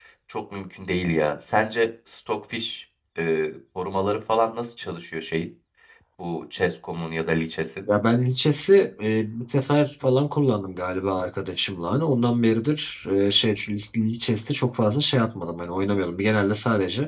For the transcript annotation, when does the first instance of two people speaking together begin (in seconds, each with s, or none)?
none